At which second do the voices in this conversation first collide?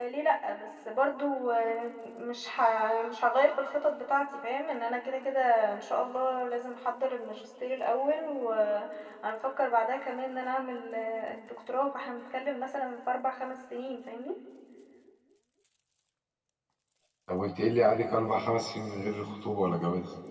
none

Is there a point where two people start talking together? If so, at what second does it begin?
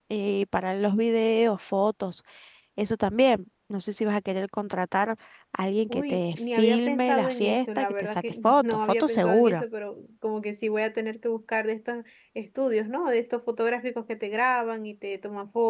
5.9 s

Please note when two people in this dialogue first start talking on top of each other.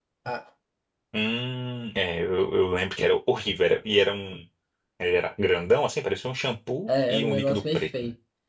6.9 s

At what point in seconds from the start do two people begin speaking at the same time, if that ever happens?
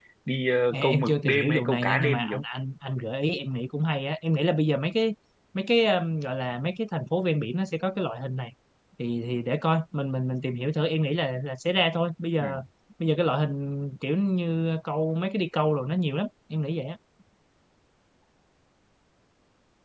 0.7 s

